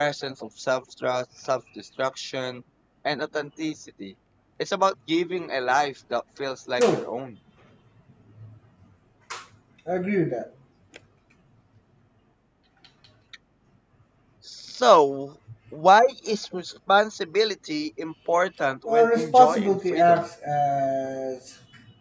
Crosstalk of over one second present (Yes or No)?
Yes